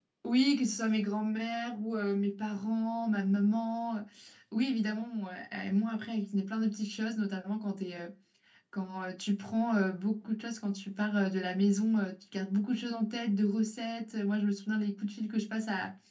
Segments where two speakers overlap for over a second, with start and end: none

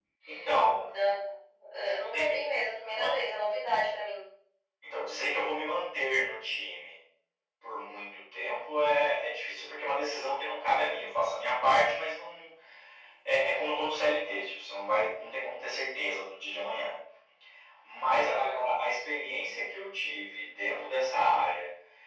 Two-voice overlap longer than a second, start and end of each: 1.8-3.2

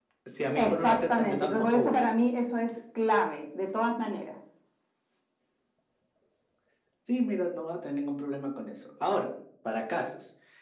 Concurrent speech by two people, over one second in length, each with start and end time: 0.6-2.0

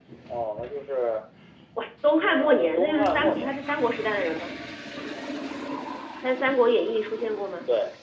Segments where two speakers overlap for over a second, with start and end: 2.2-3.6

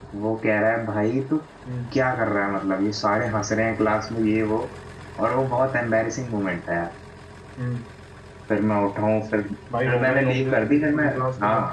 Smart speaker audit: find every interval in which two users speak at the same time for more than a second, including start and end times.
9.8-11.1

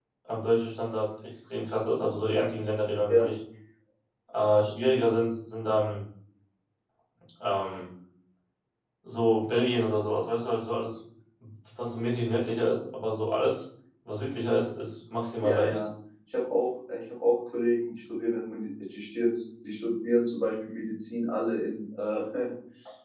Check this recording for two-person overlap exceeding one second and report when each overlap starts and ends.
none

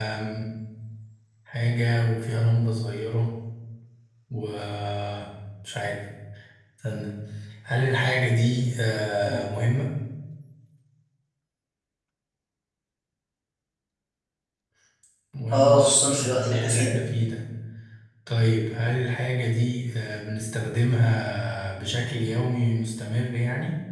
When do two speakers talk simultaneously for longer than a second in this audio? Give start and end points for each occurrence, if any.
15.5-16.9

